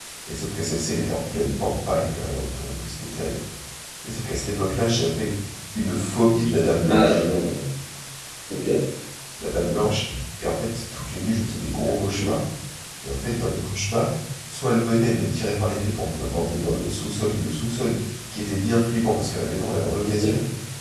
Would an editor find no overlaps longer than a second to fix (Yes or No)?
Yes